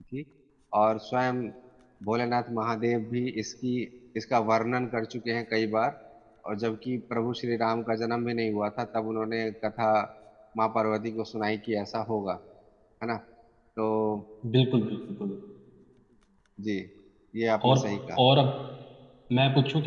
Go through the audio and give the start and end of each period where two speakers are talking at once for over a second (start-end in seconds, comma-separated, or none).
none